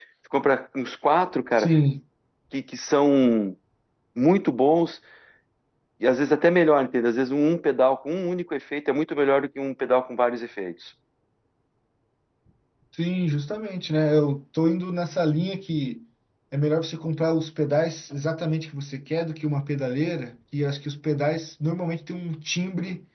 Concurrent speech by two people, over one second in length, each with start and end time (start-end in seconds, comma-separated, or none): none